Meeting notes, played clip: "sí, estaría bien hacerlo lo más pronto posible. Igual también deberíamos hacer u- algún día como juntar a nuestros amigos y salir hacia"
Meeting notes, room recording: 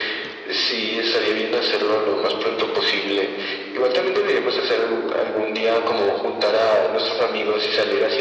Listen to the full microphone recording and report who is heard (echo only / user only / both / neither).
echo only